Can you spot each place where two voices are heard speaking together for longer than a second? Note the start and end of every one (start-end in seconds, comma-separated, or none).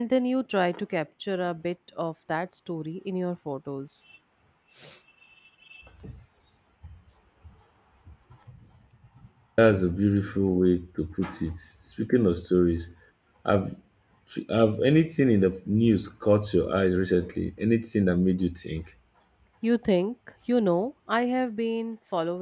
none